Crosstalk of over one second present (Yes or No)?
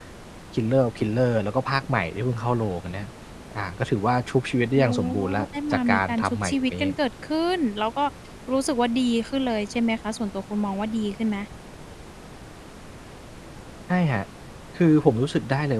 Yes